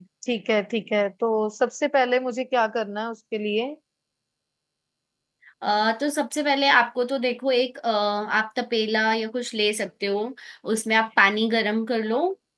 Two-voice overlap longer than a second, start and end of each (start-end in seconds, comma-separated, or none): none